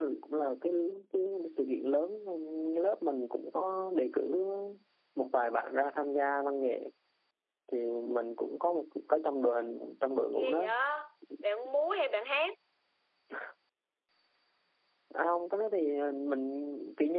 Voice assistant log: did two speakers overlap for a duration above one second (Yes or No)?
No